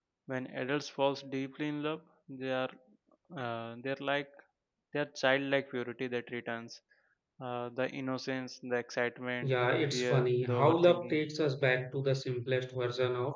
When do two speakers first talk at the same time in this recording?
9 s

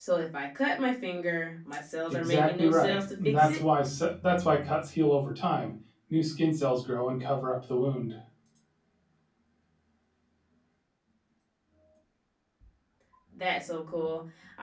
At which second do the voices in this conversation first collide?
2 s

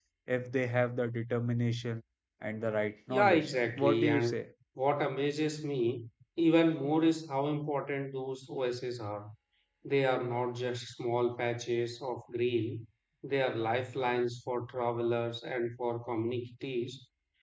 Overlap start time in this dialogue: 3 s

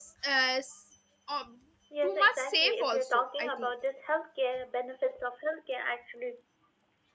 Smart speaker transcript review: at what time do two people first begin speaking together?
2 s

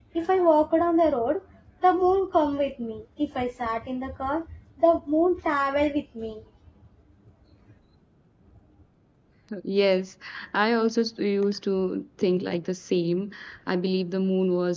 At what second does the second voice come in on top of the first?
none

